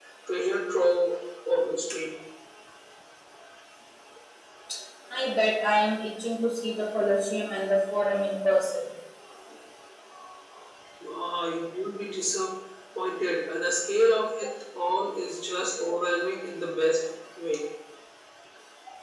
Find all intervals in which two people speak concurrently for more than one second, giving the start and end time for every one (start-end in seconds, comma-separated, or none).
none